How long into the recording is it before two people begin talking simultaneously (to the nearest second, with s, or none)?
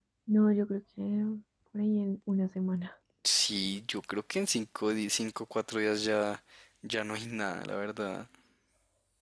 none